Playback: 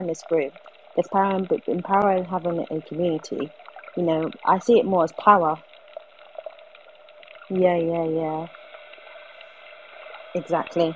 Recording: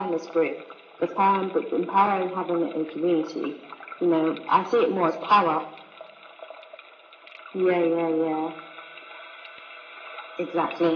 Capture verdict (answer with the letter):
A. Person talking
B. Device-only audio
B